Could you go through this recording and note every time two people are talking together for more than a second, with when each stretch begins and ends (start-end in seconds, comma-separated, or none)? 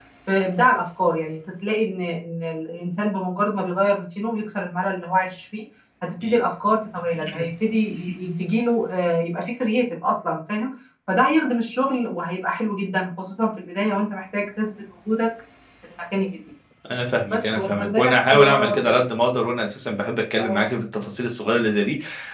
17.3-19.0